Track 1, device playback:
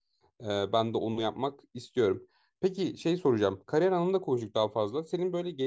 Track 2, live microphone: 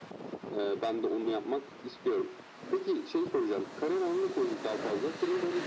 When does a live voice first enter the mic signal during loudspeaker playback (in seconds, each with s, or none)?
none